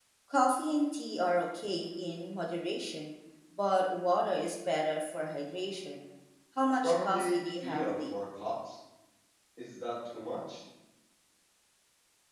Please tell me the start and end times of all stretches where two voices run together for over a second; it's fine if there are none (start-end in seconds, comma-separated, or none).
6.8-8.2